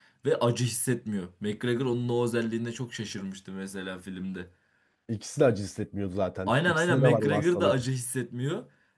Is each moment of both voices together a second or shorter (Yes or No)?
No